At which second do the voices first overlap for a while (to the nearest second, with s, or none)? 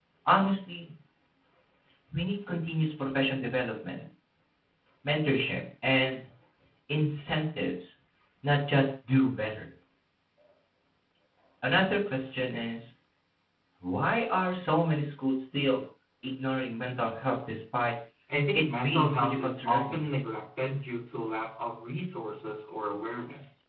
19 s